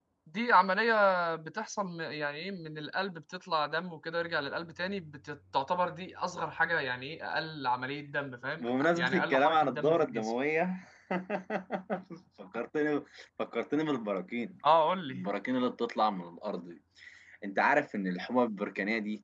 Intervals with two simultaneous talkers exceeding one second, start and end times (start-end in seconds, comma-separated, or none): 8.6-10.3